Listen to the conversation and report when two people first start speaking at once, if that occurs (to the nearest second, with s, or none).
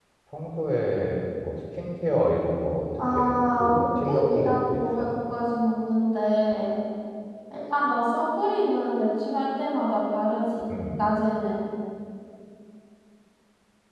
3 s